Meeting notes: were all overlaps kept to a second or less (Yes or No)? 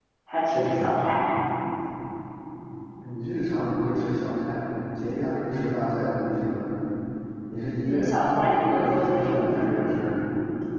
No